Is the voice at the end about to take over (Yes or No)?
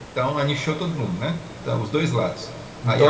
No